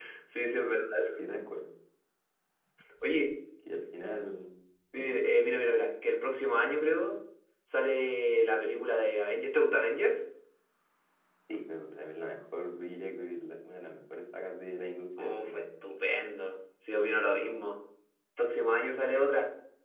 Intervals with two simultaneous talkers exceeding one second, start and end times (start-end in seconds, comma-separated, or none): none